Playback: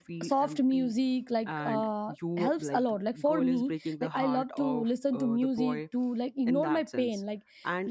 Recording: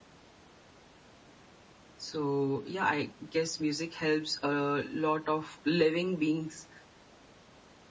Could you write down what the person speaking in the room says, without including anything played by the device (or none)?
so yeah i guess music helps a lot of living beings